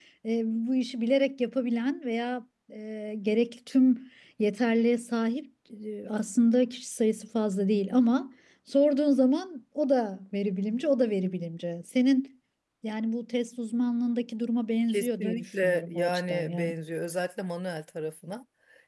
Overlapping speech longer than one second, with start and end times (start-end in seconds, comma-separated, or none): 14.9-16.7